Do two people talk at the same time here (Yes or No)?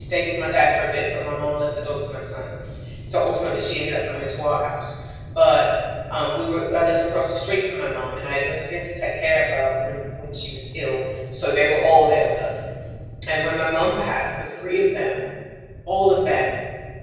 No